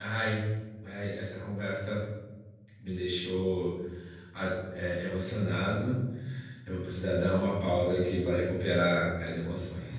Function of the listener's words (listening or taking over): taking over